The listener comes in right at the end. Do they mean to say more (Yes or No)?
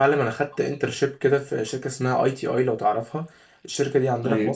No